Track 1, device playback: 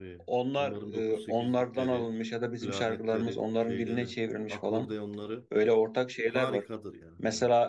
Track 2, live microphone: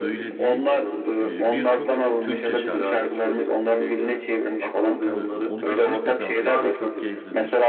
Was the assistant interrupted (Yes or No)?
Yes